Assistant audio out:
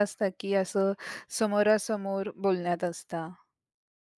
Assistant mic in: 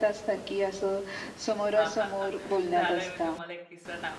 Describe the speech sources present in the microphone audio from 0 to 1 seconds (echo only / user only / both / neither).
echo only